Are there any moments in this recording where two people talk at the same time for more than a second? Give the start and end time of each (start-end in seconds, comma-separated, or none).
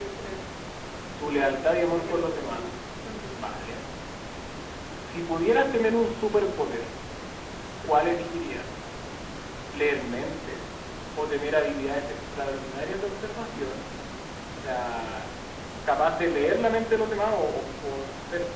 1.4-2.6